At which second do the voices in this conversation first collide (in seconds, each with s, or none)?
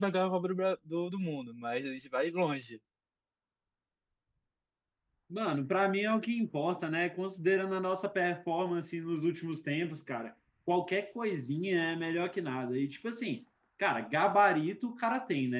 none